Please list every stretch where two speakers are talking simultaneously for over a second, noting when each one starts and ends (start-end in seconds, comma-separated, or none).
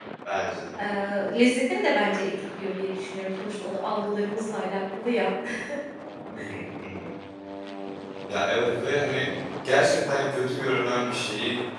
none